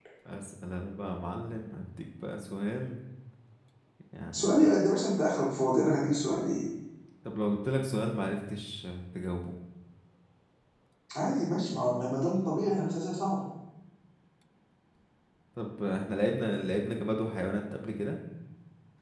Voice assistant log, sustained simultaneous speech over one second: none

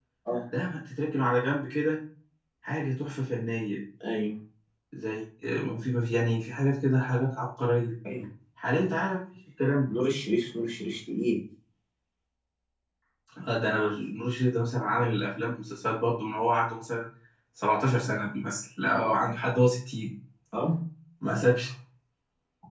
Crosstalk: none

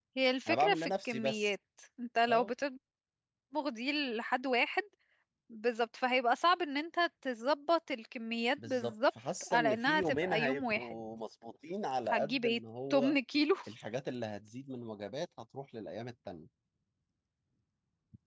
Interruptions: present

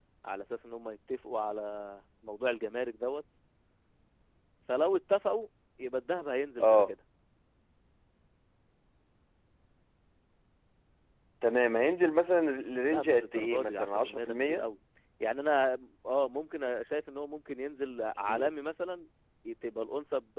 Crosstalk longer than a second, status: present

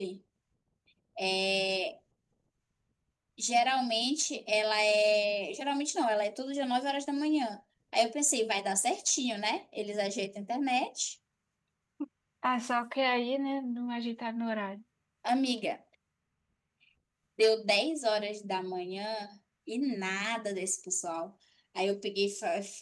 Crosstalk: none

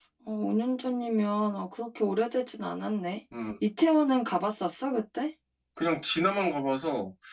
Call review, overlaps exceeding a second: none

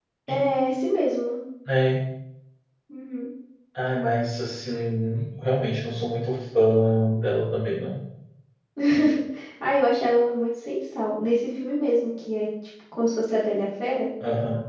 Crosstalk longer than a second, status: none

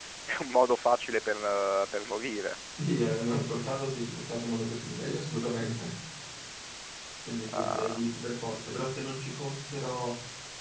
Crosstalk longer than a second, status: none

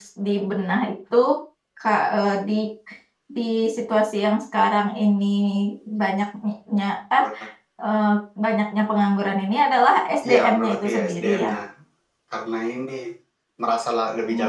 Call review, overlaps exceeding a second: present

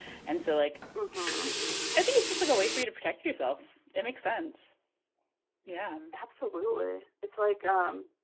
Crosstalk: none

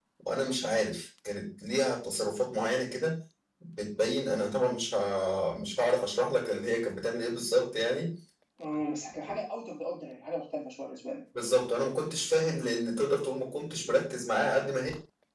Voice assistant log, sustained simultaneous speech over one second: none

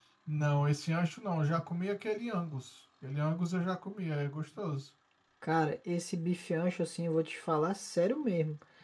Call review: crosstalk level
none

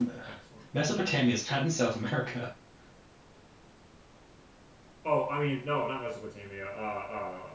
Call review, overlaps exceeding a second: none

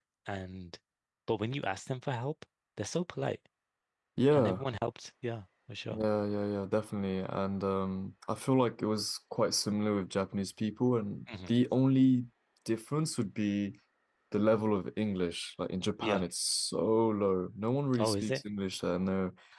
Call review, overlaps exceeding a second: none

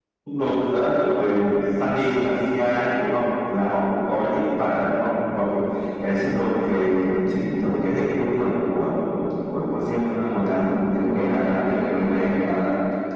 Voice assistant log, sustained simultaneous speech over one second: present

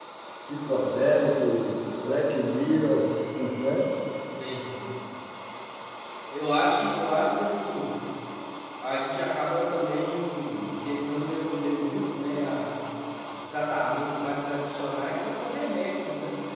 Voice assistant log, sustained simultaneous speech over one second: none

